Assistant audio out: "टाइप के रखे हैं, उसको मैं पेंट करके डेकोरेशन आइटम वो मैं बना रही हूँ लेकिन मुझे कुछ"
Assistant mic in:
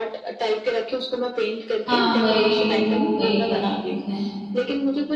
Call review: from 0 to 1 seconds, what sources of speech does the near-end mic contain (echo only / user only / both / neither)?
echo only